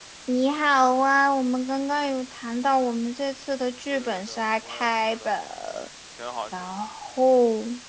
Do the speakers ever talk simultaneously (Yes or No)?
Yes